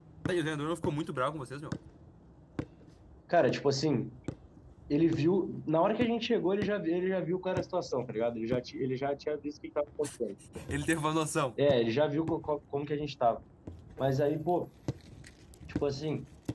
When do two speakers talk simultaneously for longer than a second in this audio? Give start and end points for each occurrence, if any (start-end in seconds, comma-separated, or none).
none